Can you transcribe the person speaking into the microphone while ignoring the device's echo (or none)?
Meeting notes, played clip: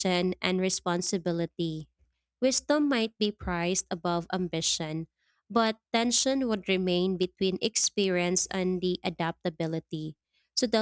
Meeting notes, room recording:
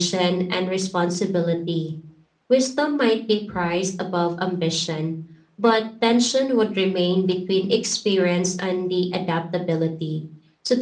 none